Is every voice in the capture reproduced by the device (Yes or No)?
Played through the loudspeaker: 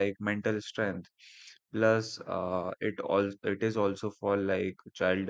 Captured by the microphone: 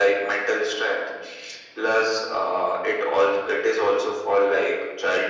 Yes